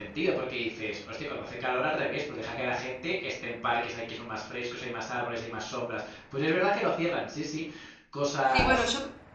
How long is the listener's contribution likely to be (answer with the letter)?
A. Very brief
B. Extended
B